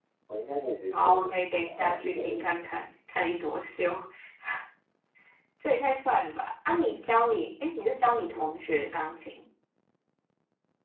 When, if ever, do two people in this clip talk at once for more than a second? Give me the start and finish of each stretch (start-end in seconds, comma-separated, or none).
1.0-2.5